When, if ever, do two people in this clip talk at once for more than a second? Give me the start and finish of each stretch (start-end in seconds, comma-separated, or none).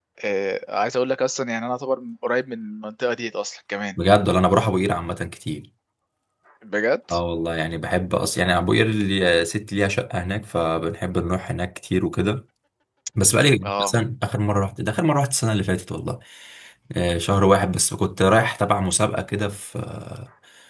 none